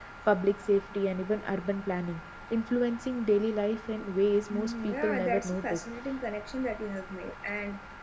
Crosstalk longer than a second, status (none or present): present